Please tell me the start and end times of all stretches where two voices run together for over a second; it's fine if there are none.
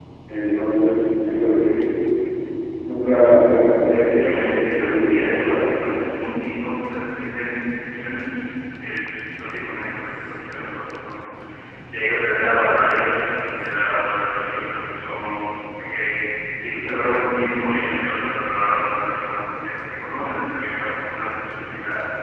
3.9-6.1

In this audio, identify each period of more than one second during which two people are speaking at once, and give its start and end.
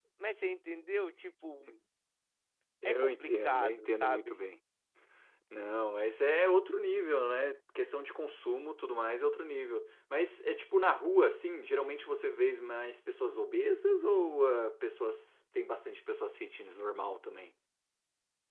2.9-4.3

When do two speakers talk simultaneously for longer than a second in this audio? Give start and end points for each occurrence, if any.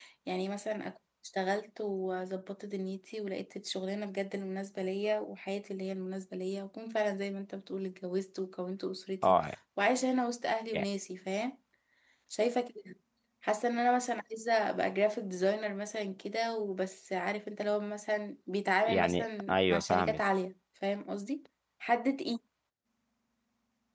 18.9-20.2

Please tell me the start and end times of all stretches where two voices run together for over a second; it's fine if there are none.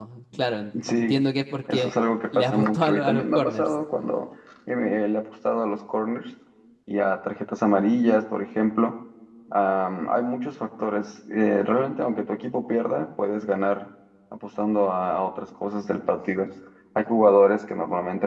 2.3-3.7

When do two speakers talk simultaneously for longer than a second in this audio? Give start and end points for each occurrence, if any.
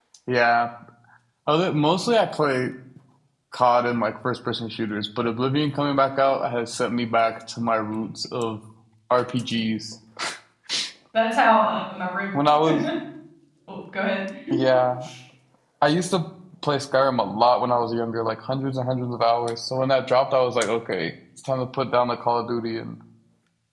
none

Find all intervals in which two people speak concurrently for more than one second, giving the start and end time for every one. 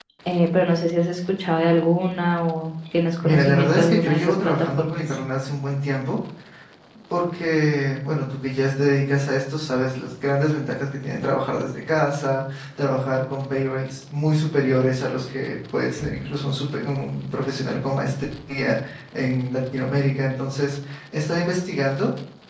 3.2-5.2

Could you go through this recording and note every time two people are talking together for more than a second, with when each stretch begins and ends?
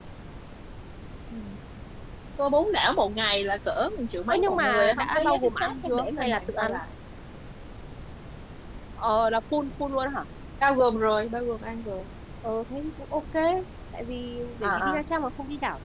4.3-6.7

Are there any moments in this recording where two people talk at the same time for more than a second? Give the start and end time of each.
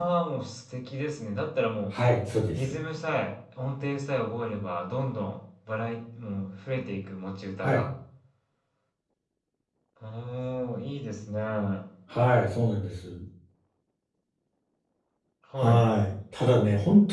none

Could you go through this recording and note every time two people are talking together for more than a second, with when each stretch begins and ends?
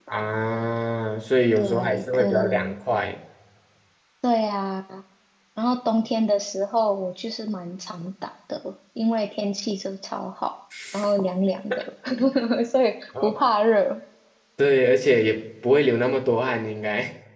1.6-2.8

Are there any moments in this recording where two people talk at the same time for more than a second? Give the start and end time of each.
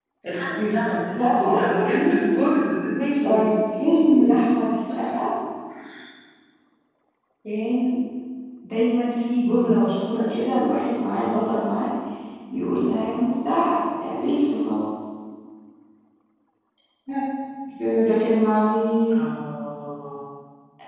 1.2-2.4, 3.2-4.4

